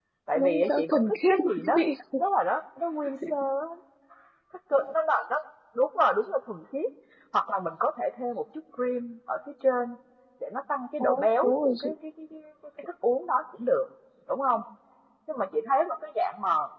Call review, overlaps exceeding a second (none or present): present